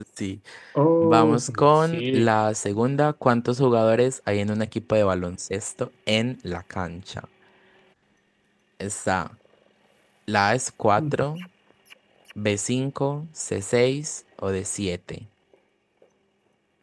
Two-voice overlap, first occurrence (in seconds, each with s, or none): 1.0 s